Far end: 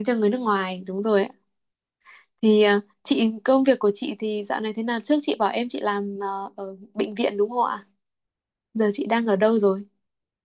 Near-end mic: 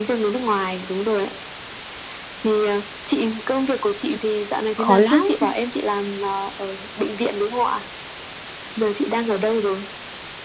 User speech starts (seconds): 4.1 s

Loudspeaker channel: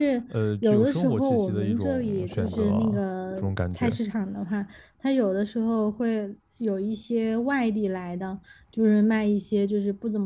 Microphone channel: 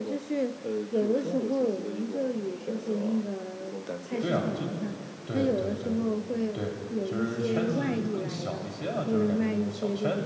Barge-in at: 4.2 s

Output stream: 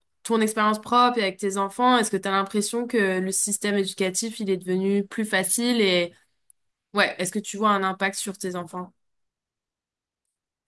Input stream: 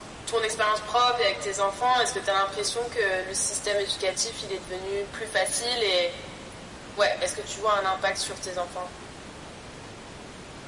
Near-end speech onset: none

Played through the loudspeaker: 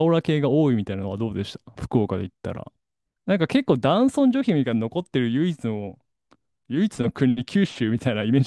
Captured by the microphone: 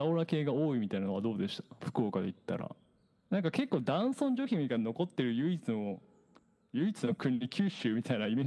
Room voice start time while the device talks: none

